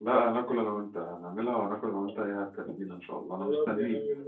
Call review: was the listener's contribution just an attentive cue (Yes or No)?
No